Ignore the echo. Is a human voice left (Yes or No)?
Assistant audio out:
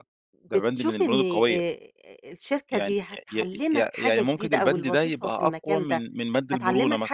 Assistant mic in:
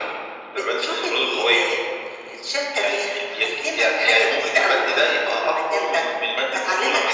No